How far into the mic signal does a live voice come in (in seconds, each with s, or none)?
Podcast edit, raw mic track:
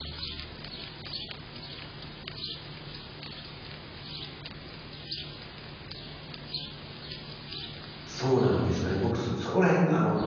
8.0 s